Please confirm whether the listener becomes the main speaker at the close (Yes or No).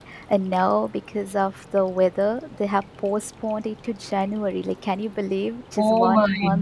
Yes